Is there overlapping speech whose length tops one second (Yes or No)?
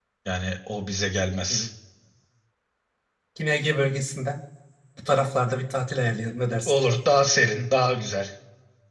No